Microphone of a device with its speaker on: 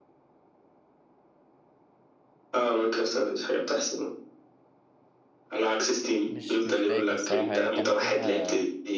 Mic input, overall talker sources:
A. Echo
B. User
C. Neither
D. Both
D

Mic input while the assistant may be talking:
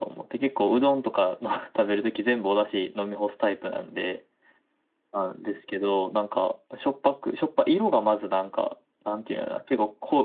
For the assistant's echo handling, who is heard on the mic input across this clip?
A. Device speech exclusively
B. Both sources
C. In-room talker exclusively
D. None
A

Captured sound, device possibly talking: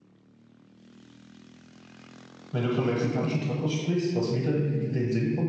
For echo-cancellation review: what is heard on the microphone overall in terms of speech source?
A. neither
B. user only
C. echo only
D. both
B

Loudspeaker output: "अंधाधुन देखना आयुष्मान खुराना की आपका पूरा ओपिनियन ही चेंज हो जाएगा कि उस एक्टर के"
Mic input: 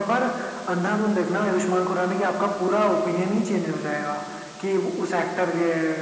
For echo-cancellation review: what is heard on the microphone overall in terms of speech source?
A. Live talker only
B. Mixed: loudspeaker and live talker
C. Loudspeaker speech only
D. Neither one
C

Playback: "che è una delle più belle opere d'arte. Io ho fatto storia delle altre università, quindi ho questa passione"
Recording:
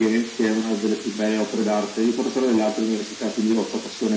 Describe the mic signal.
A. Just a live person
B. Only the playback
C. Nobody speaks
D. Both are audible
B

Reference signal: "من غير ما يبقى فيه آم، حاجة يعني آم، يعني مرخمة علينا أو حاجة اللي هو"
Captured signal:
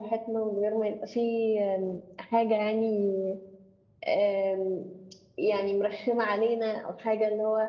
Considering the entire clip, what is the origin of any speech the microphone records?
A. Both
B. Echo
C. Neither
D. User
B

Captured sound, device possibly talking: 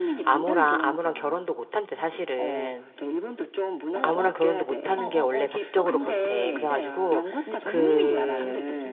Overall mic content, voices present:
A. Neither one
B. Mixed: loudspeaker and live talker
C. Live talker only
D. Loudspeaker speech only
B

